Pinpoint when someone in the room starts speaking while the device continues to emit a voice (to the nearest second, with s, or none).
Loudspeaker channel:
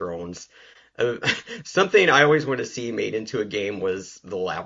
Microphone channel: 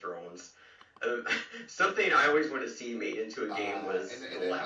3 s